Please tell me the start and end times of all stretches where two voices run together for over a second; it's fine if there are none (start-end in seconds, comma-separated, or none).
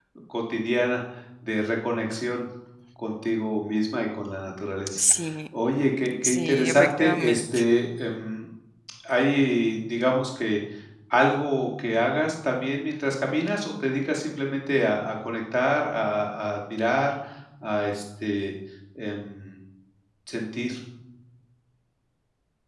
6.2-7.6